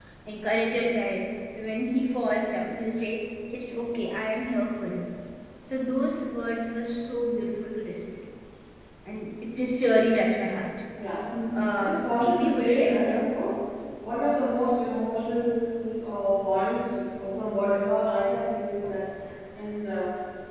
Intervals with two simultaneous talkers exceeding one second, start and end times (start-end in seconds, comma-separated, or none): 11.8-13.3